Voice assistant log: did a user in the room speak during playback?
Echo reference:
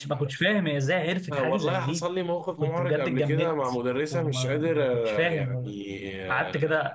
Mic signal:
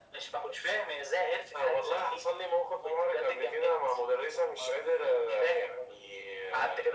No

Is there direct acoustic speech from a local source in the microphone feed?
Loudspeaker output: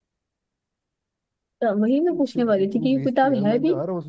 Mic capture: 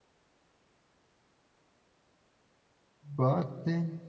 Yes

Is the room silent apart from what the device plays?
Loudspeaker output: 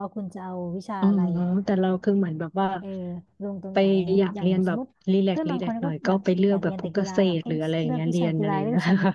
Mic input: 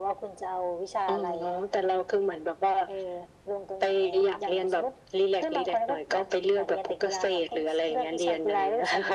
Yes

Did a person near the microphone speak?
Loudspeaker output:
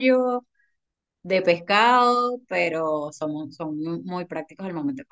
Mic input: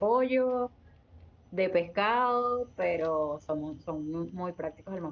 No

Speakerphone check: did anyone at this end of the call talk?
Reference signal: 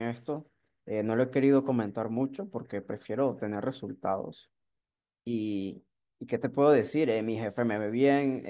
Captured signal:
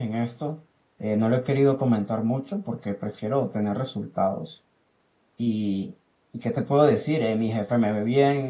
No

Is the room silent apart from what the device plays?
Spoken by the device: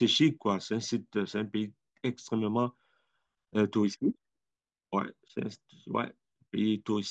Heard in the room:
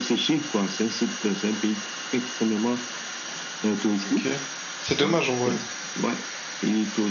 No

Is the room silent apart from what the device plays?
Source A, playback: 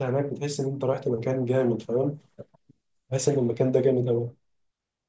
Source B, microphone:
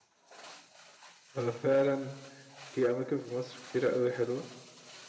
No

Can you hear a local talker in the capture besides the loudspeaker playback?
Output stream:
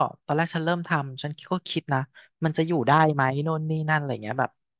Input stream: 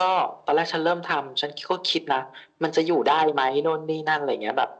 No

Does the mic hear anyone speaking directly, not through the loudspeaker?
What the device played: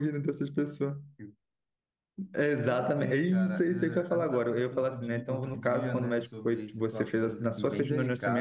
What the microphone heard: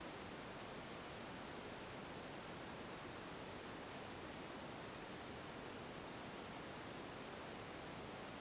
No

